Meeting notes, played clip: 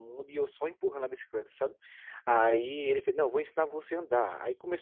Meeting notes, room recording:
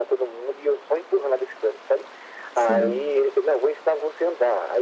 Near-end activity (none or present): present